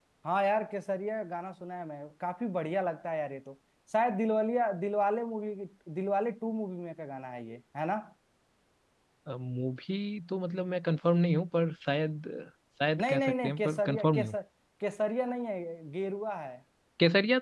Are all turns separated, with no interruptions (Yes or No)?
No